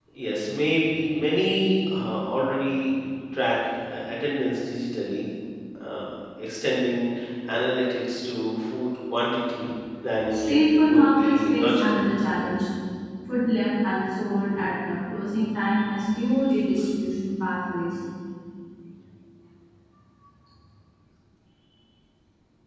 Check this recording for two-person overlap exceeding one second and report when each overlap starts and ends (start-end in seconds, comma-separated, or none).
10.3-12.0